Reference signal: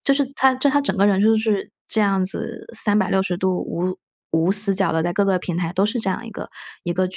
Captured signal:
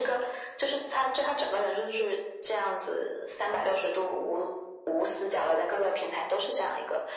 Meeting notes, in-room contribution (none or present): none